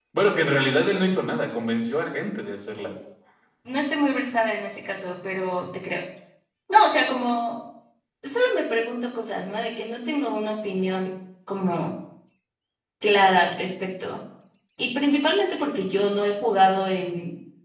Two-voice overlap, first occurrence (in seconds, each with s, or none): none